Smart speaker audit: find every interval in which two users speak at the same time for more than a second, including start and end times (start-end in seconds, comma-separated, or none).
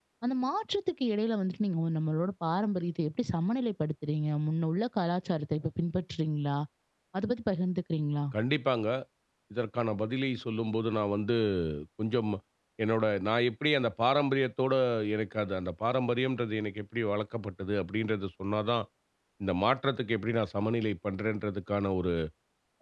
none